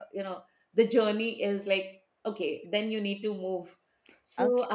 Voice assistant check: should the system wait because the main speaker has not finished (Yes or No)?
No